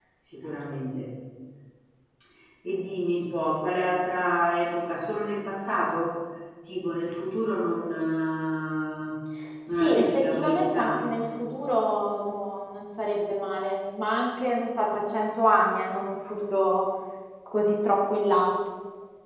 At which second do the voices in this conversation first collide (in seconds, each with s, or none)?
9.7 s